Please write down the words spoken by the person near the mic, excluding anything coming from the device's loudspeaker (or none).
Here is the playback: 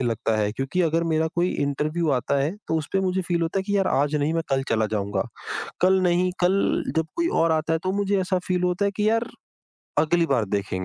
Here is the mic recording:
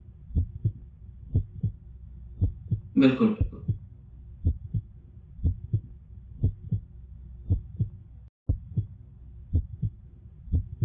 बिल्कुल, बिल्कुल।